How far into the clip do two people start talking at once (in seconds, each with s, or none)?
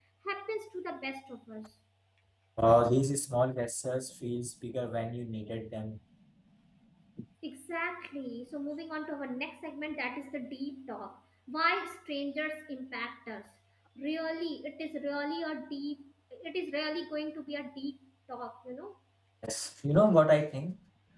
none